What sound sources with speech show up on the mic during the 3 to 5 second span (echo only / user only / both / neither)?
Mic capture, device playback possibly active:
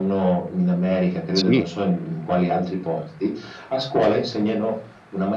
echo only